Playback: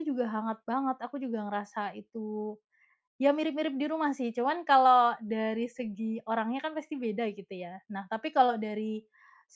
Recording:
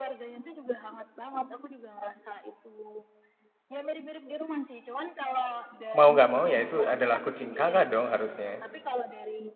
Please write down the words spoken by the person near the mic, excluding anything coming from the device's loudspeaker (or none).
mau nggak mau ya itu adalah kucing Kakak dong harusnya?